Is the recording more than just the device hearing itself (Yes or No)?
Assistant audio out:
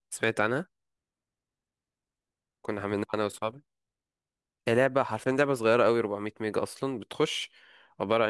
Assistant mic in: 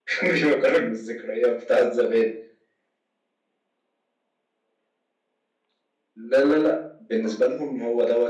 Yes